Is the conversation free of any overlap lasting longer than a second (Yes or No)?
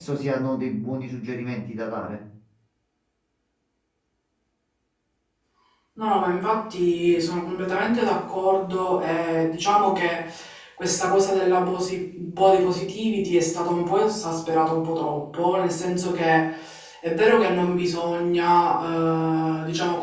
Yes